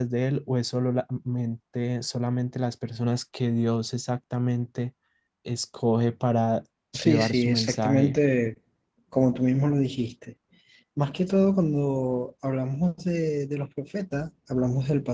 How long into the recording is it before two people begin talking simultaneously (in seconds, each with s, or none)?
6.9 s